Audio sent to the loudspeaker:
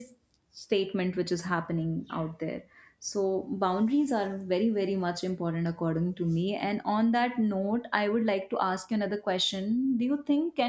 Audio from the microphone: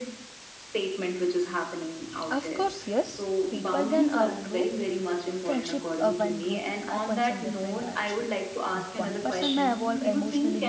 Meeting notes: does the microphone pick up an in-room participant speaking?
Yes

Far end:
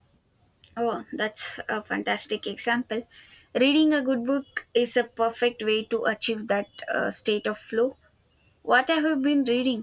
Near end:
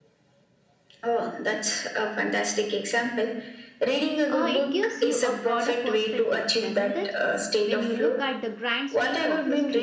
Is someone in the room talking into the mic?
Yes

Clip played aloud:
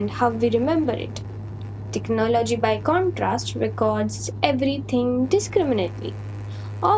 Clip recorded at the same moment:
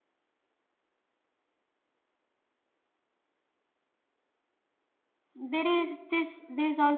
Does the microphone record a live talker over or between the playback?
Yes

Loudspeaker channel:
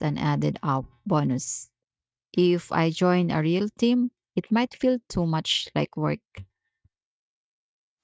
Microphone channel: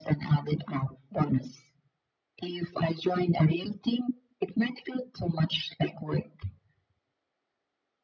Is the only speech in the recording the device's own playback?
Yes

